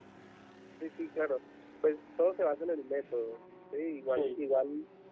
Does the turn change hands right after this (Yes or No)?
No